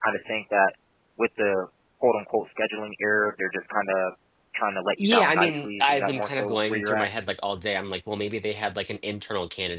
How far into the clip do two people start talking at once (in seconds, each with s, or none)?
5.0 s